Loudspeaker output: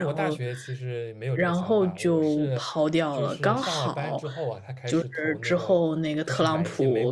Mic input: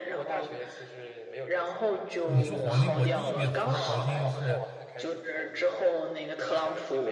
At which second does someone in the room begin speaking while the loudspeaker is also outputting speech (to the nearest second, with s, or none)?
2 s